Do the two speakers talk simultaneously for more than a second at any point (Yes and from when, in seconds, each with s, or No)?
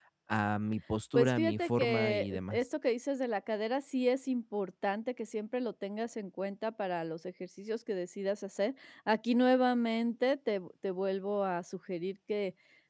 Yes, from 1.1 s